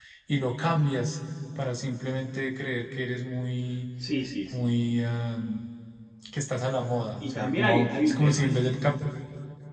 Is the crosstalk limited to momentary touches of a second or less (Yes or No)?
No